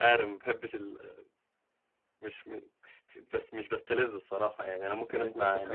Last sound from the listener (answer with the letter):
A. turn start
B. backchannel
A